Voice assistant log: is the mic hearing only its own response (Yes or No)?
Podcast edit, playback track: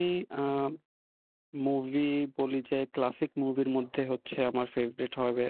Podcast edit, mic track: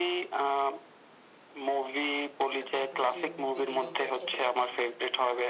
No